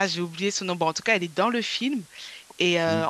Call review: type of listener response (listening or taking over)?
listening